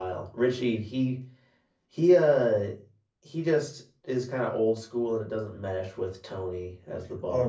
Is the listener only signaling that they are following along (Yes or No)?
No